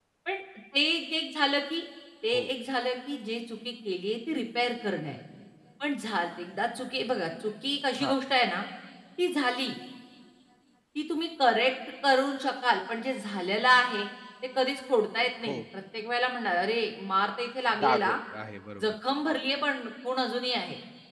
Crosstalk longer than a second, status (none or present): none